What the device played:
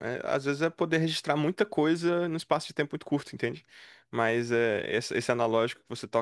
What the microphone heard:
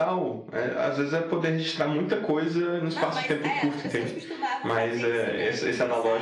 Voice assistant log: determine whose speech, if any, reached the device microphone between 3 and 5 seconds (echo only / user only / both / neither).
both